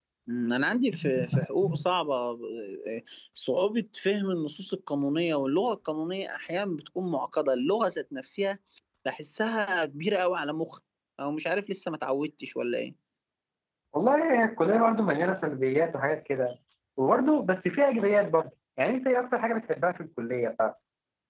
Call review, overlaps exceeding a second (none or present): none